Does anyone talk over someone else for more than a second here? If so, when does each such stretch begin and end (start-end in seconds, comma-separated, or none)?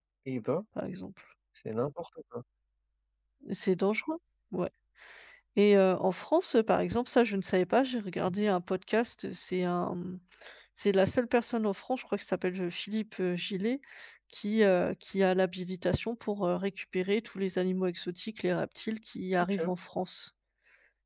none